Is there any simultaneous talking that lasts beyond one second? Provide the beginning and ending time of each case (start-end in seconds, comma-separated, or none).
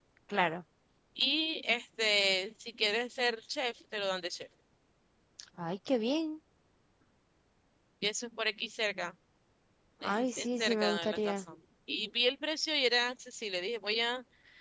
10.0-11.4